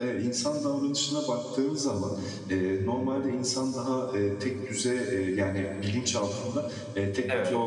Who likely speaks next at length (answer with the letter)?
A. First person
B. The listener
A